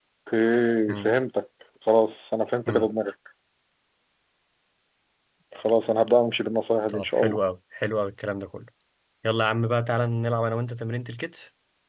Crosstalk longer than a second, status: none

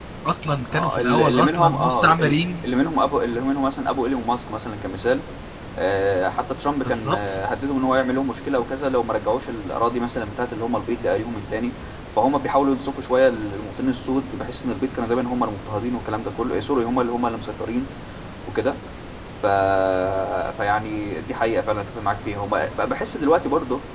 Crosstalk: present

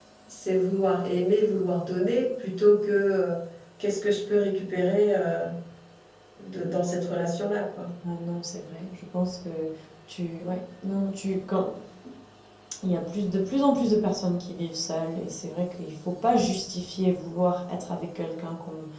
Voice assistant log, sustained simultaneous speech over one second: none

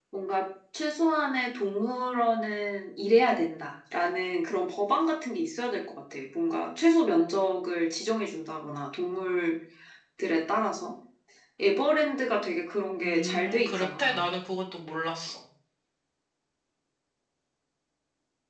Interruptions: present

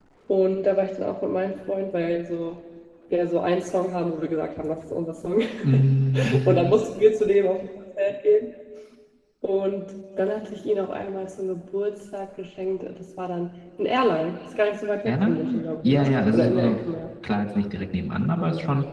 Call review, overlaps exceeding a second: present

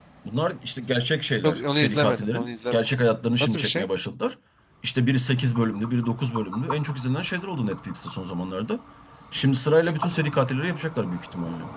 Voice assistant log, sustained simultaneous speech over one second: present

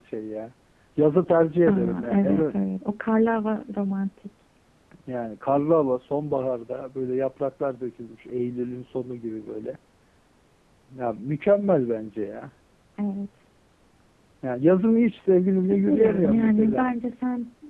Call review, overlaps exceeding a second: present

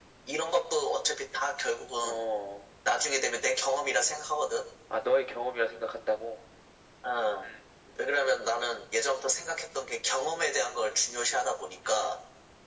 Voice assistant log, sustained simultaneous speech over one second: none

